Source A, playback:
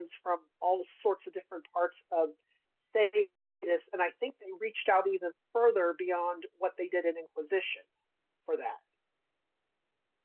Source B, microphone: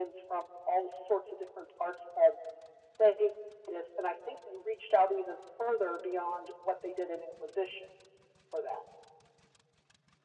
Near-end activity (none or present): none